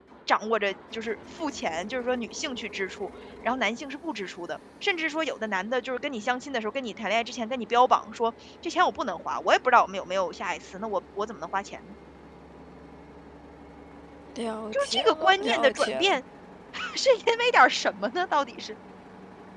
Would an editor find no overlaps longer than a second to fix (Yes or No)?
No